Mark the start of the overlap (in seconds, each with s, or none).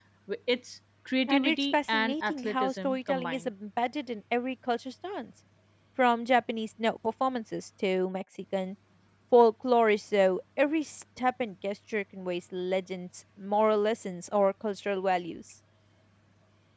1.3 s